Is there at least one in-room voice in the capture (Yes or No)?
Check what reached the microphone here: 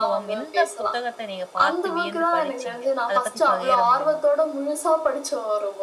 Yes